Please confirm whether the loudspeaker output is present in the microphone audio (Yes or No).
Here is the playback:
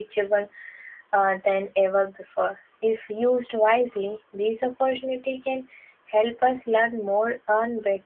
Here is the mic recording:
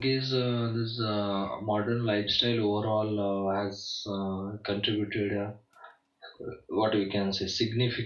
No